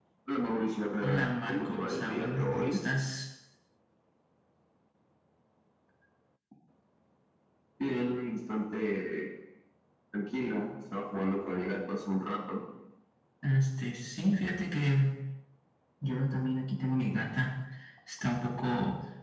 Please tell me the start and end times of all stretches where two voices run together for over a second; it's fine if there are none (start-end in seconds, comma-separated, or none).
1.0-2.8